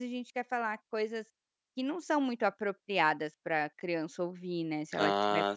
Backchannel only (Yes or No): No